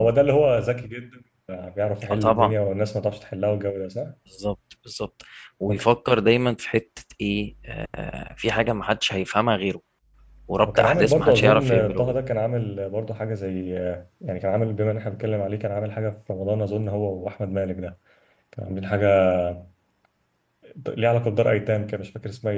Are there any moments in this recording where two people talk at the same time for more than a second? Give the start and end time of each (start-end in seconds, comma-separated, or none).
10.7-12.2